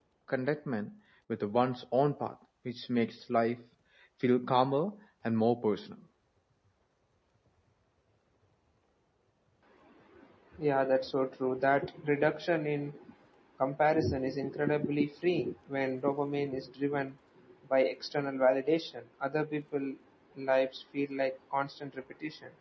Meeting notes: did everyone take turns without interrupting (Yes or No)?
Yes